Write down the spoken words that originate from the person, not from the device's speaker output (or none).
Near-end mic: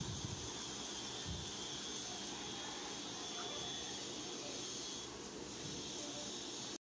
none